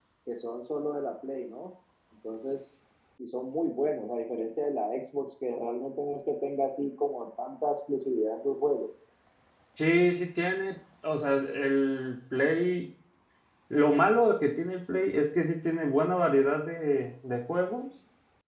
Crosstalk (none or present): none